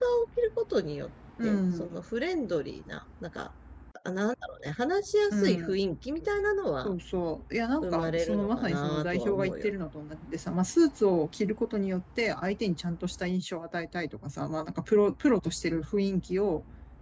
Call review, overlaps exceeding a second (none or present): present